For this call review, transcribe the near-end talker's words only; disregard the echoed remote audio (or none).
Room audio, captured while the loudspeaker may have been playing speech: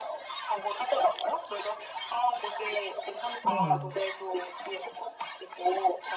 우와.